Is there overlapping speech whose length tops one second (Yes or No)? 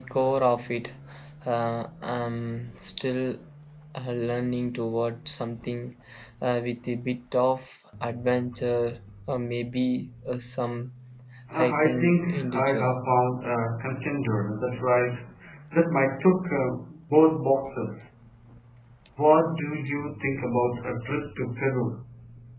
Yes